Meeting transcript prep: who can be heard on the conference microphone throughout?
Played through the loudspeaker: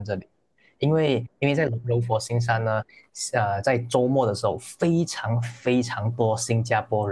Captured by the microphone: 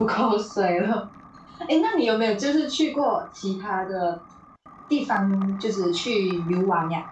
user only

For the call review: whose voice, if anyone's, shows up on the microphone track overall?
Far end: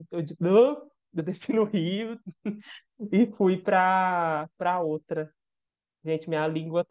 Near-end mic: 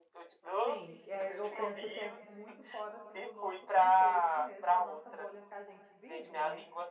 both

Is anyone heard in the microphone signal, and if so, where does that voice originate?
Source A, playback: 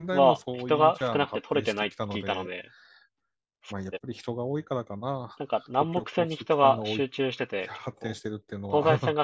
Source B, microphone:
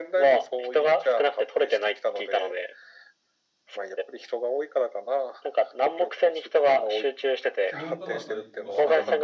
both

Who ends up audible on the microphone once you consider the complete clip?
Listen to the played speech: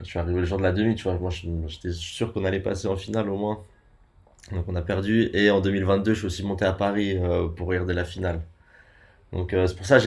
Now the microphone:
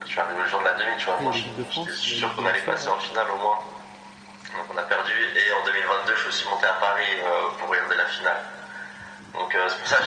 both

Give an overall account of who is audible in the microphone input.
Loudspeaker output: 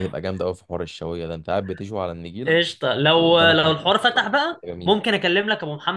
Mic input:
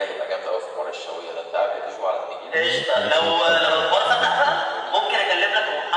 both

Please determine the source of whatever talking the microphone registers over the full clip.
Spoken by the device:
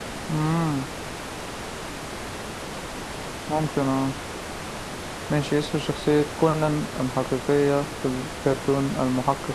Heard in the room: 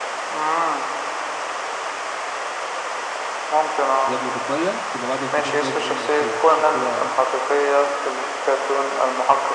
both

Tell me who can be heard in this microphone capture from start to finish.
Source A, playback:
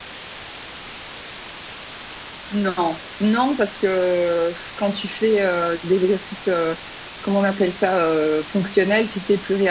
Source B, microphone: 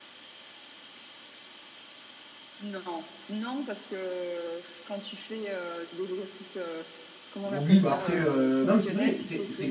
both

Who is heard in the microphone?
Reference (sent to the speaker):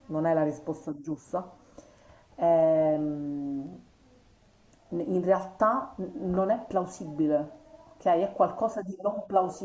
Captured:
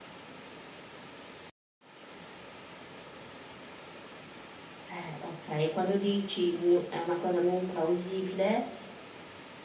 user only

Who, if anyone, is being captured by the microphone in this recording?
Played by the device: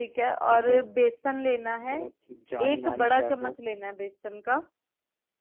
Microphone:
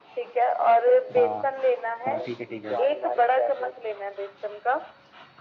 both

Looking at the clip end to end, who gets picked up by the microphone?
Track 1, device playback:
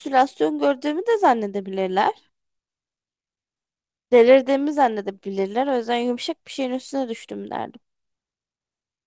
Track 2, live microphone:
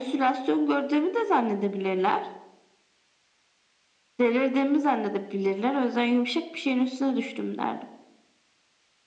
echo only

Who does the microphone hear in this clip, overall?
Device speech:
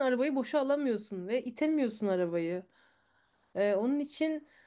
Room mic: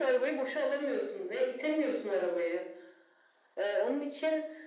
echo only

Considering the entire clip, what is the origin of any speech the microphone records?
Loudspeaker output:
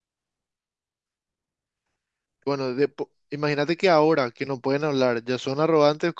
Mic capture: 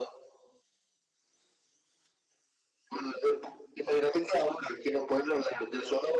echo only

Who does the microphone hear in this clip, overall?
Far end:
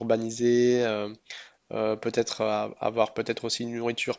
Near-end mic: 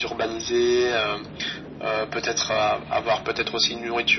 echo only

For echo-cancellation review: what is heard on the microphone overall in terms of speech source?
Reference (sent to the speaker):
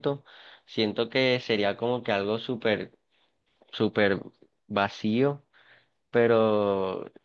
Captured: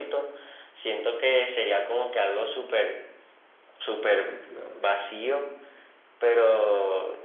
both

